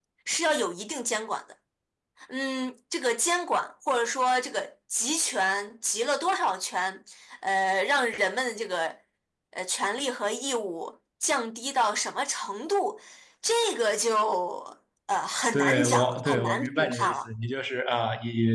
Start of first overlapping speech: 15.5 s

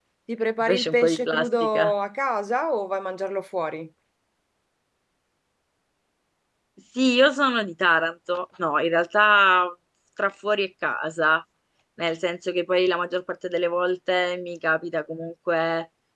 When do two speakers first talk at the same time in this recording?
0.6 s

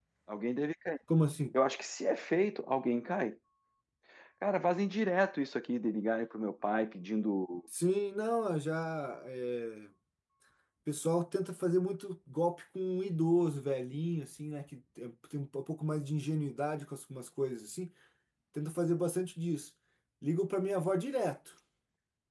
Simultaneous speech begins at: none

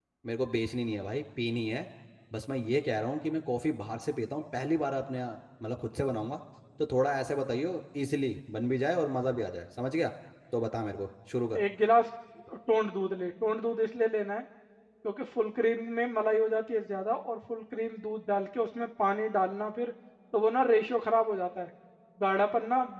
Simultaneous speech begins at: none

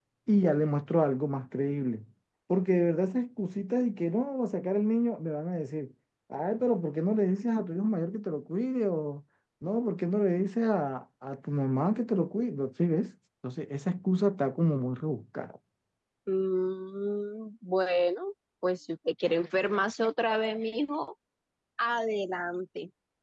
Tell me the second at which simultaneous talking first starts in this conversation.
none

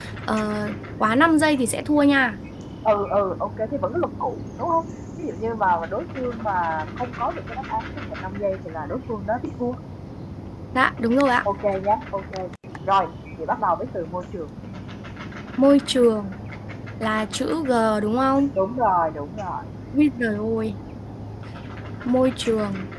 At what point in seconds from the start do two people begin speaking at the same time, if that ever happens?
none

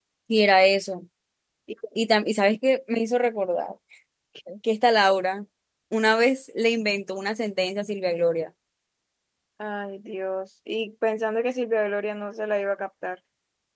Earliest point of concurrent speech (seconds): none

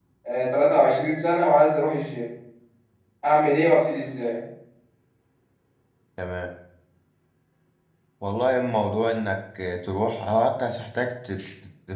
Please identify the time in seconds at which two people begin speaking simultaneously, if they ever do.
none

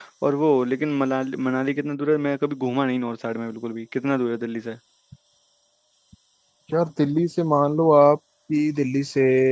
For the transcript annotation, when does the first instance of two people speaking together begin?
none

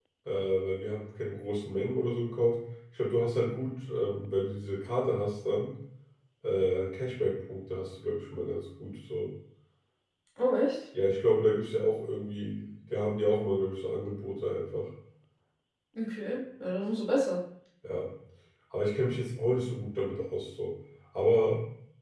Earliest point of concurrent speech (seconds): none

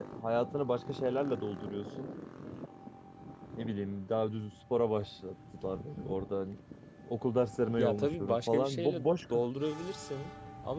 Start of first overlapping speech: 7.8 s

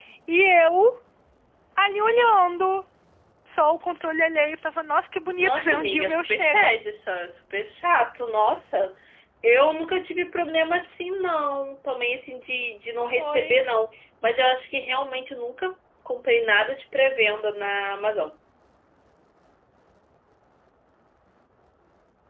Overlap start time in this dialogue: 5.4 s

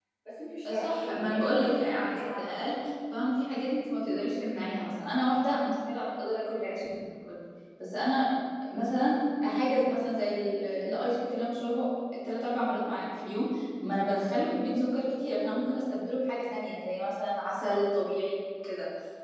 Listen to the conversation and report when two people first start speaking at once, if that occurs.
0.7 s

